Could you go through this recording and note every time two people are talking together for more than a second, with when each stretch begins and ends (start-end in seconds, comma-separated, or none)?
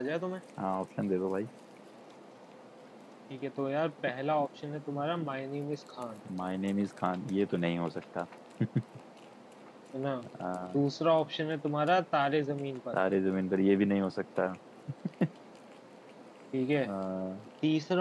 none